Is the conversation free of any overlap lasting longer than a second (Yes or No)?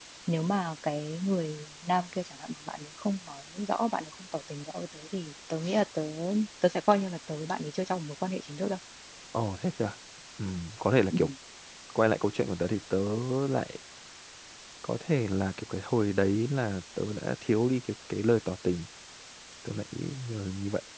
Yes